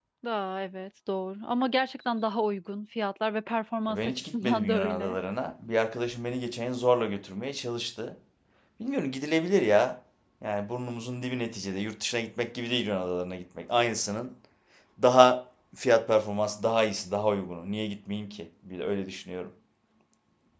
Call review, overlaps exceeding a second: present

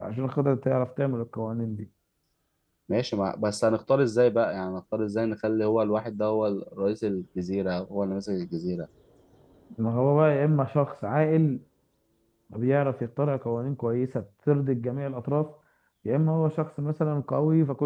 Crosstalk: none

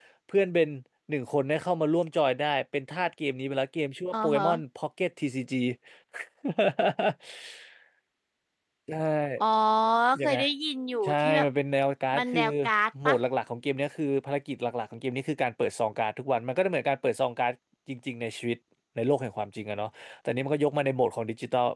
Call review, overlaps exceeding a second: none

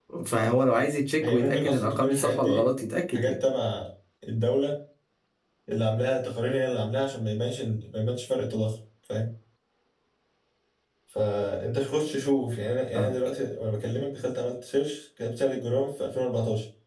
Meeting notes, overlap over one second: present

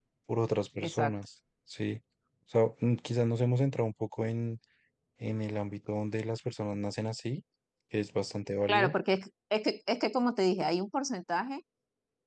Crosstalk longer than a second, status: none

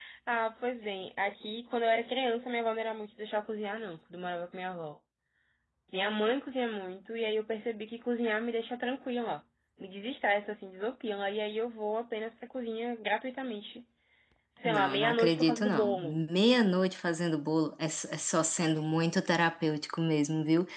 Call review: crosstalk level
present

